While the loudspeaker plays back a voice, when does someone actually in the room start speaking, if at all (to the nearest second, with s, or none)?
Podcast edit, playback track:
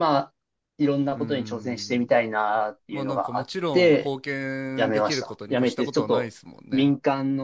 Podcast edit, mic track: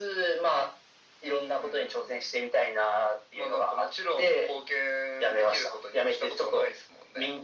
none